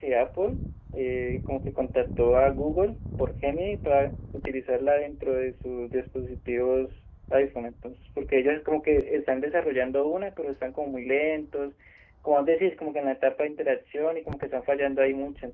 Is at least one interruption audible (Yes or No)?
No